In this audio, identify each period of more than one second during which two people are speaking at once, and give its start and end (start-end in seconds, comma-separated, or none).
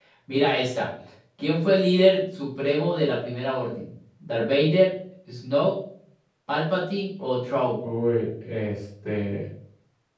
none